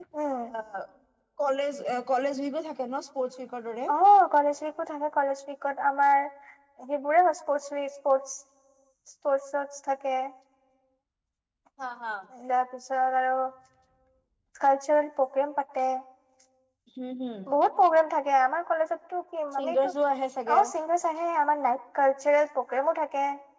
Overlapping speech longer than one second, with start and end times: none

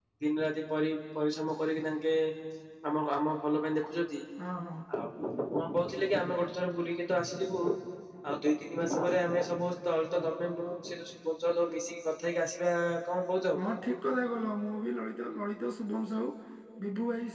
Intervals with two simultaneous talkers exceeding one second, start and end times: none

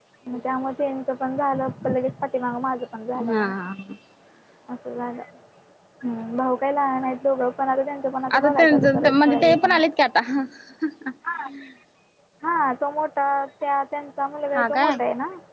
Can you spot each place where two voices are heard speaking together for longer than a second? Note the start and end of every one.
8.3-9.8

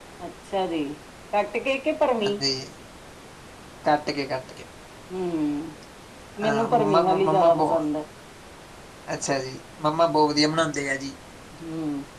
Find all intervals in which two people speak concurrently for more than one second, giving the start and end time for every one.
6.4-7.8

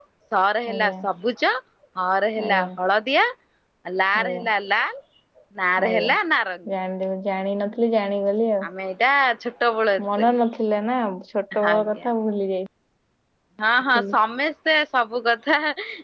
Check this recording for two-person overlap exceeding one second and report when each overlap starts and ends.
none

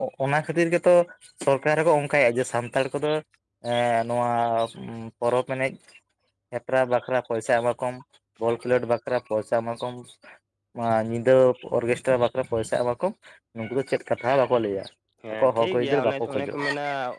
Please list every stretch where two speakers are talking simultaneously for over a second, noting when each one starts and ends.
15.3-16.6

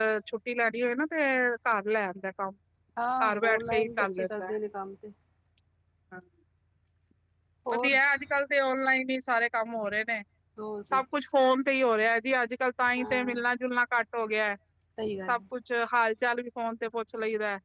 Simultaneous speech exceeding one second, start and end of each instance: 3.2-4.5

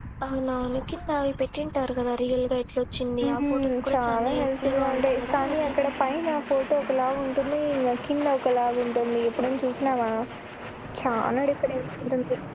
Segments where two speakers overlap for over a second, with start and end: 3.2-5.7

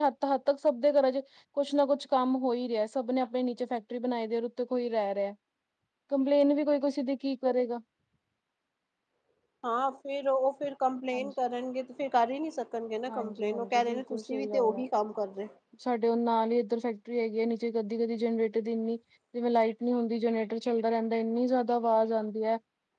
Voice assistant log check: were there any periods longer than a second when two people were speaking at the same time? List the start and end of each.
13.1-14.8

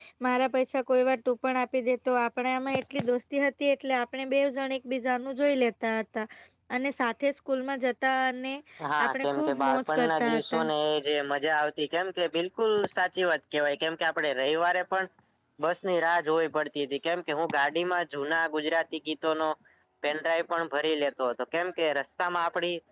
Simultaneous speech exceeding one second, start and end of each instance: 9.0-10.6

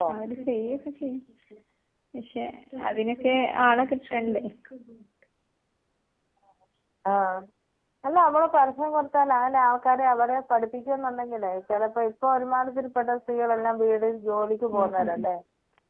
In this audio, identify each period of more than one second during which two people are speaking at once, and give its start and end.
none

